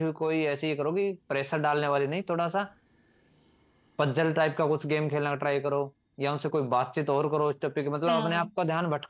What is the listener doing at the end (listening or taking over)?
listening